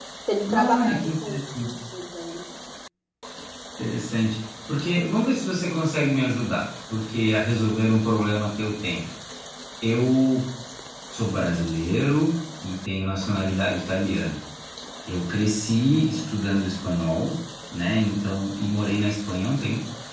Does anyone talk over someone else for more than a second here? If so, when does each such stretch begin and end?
0.5-1.7

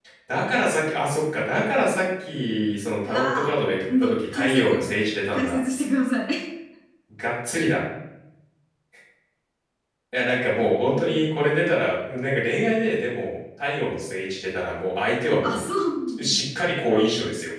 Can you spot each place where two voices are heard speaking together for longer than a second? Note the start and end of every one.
3.0-4.7

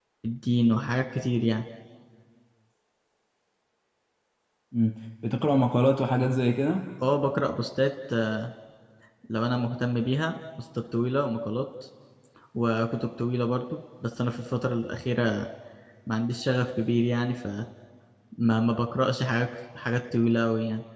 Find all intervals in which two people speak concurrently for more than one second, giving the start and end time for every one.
none

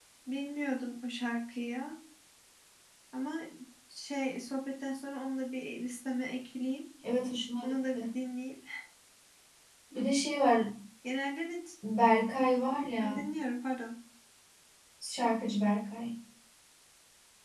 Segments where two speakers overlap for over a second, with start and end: none

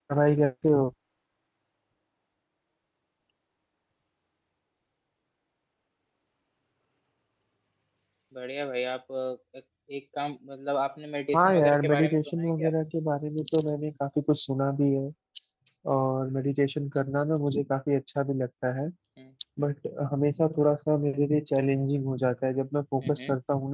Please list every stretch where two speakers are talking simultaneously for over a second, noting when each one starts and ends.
11.4-12.7

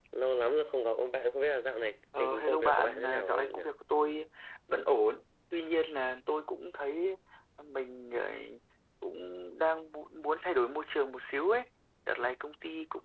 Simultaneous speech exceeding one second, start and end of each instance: 2.2-3.6

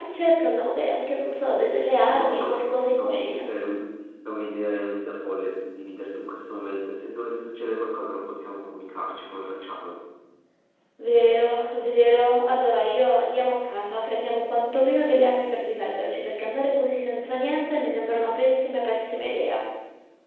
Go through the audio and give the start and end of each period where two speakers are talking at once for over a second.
2.1-3.5

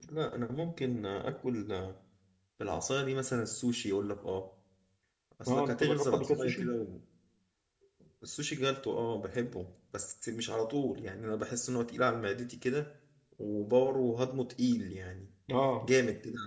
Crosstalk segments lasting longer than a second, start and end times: 5.5-6.7

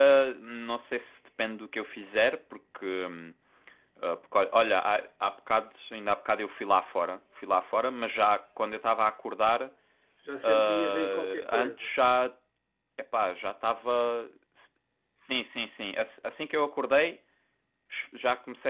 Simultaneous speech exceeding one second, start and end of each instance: 10.4-11.9

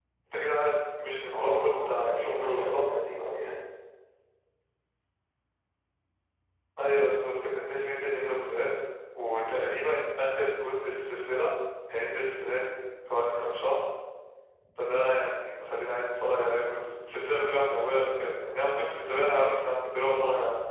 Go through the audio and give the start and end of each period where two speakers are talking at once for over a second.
1.3-2.8

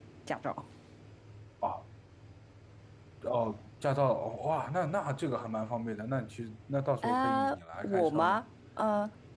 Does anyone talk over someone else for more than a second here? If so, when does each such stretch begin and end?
7.0-8.4

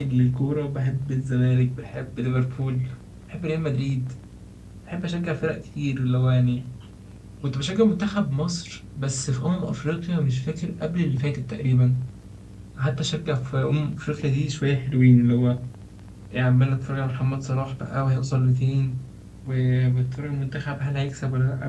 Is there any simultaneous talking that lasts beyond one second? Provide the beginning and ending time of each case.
none

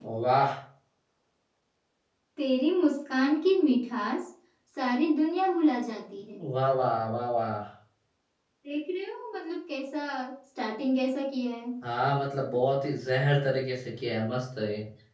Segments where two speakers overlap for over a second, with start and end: none

